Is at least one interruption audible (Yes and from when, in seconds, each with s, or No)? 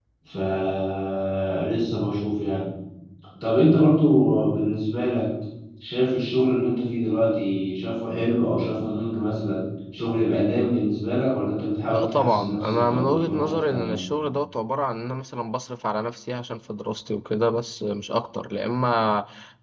Yes, from 11.9 s